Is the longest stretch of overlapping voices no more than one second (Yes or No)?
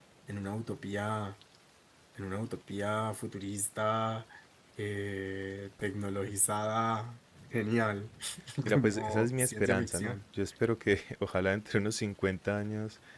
No